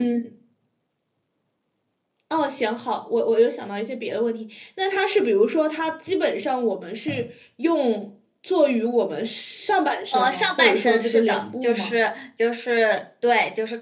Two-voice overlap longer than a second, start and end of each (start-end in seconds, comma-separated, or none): 10.1-11.9